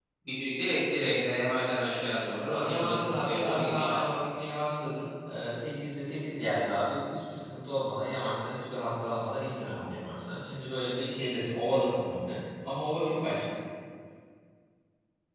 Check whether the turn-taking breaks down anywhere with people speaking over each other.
Yes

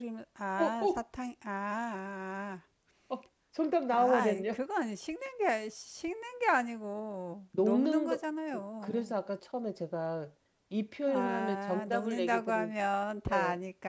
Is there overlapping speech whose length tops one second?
Yes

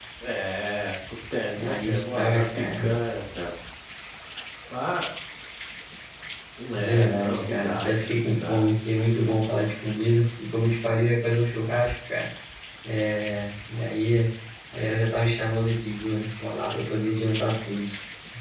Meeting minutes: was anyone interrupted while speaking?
Yes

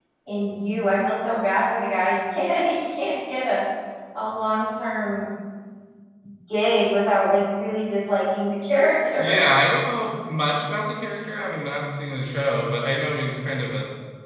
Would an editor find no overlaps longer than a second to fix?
Yes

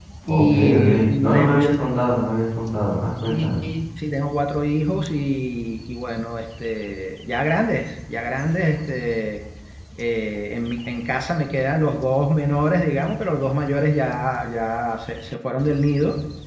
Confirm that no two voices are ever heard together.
No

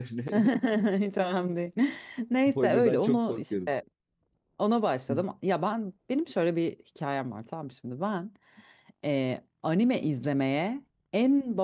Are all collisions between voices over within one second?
No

